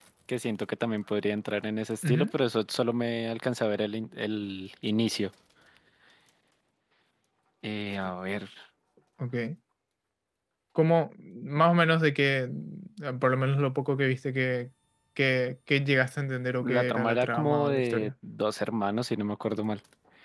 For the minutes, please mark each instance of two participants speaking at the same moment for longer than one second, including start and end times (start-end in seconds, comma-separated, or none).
16.6-18.1